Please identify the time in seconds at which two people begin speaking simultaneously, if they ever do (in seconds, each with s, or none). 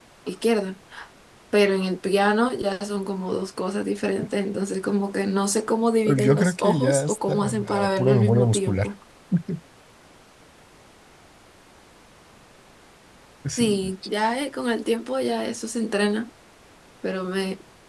6.2 s